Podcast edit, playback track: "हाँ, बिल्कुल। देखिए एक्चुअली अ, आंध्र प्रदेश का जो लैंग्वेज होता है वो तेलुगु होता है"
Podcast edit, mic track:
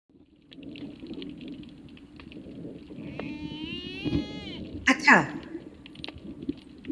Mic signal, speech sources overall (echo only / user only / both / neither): user only